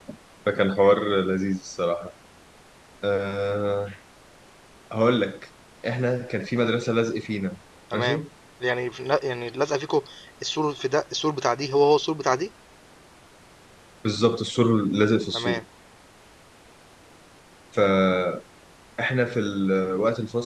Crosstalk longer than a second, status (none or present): none